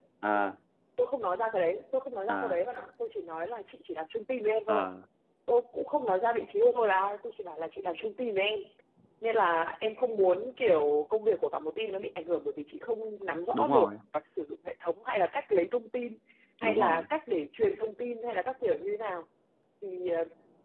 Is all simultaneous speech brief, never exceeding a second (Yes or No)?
Yes